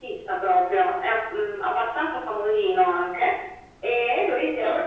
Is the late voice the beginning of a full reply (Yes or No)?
Yes